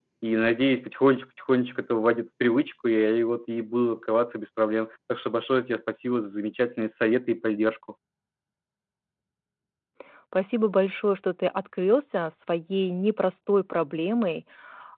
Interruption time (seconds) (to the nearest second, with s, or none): none